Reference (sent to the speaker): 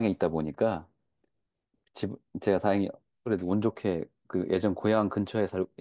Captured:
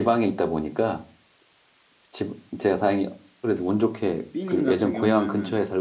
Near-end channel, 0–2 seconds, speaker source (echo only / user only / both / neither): echo only